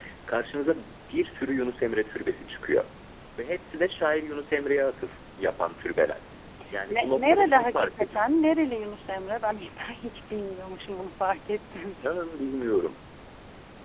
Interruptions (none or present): present